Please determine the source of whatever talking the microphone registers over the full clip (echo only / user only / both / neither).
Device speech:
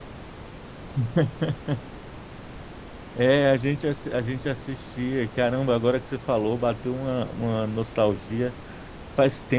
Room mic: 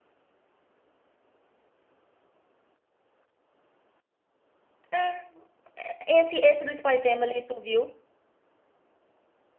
user only